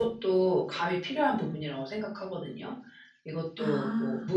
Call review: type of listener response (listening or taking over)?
listening